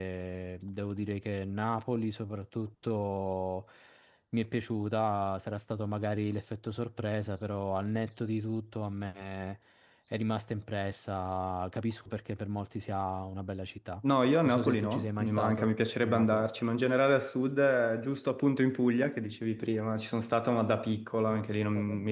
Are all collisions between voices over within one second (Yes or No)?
No